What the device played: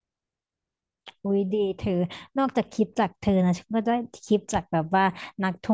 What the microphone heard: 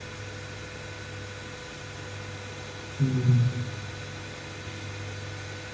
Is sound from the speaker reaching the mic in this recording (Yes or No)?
No